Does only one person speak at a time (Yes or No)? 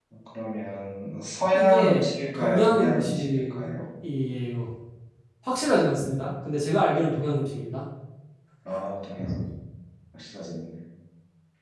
No